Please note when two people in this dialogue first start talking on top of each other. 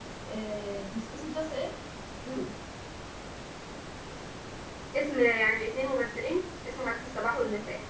none

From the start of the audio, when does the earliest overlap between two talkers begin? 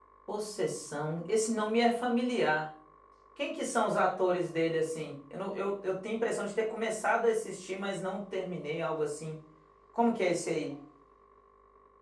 none

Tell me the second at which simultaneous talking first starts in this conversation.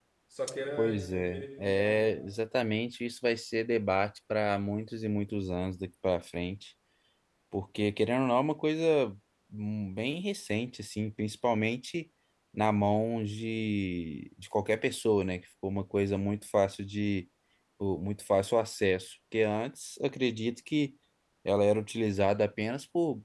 0.8 s

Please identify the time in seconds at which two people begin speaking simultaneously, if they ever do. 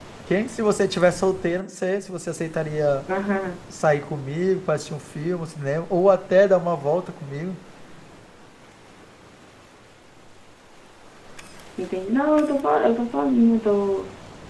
none

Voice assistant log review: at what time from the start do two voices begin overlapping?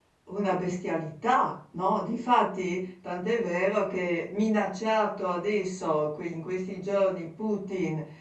none

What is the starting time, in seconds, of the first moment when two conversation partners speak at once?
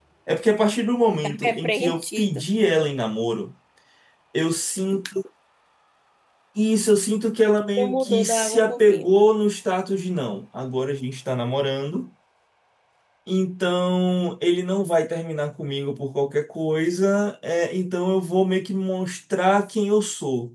1.2 s

